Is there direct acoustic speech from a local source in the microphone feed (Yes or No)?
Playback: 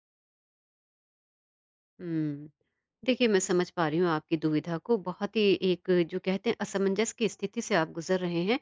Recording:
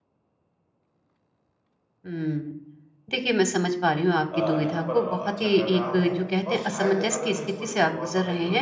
Yes